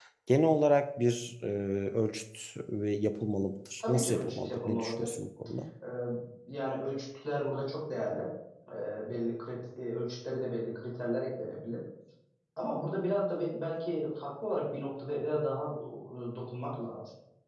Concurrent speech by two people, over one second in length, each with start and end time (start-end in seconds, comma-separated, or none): 3.8-5.1